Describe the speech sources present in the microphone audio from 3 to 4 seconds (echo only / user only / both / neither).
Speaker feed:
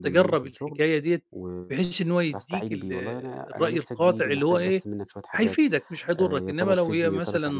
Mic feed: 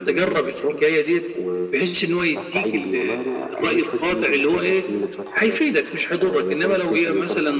echo only